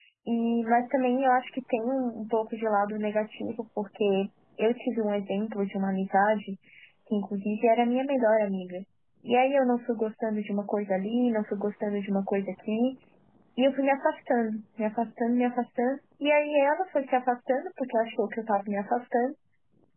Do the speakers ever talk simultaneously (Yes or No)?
No